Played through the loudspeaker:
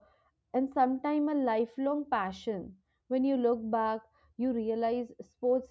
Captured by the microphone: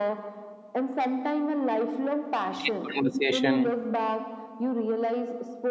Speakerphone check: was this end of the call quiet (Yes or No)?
No